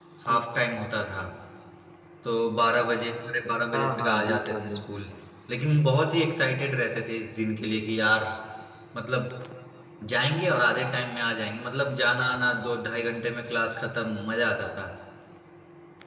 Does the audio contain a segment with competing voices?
Yes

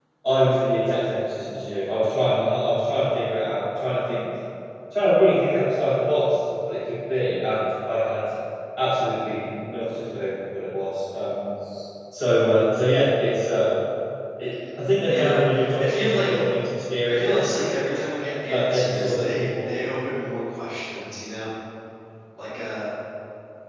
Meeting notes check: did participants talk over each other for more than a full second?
Yes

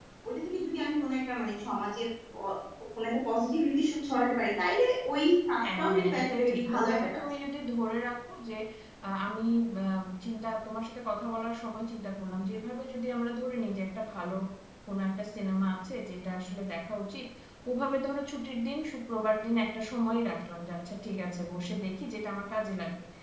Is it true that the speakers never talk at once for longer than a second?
No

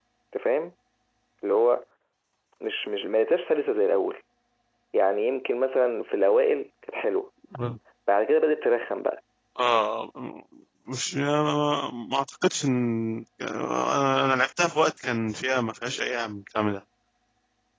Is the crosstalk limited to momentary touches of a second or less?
Yes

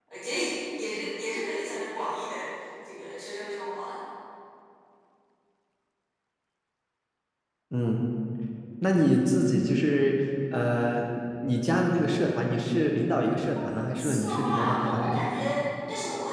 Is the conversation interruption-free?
No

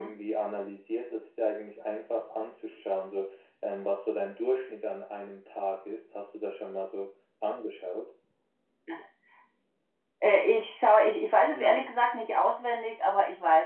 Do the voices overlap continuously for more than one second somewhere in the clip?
No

